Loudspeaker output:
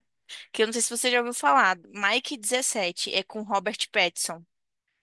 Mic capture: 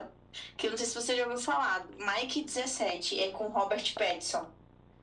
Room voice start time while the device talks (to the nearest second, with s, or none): none